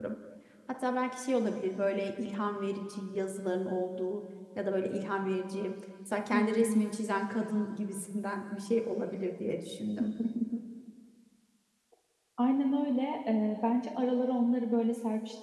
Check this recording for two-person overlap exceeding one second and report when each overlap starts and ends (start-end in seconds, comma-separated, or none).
none